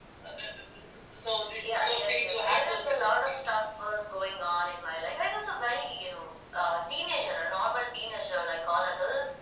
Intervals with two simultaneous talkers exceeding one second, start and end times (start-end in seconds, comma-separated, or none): 1.6-3.5